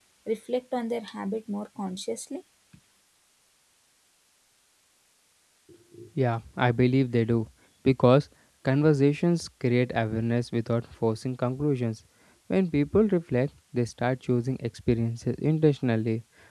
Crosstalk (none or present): none